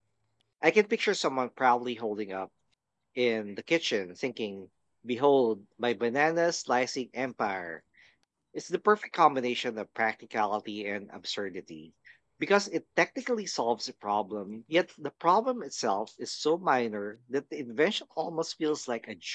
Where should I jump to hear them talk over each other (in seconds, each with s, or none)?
none